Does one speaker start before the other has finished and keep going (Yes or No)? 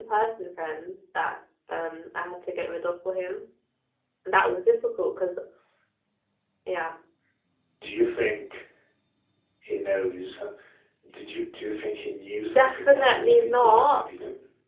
Yes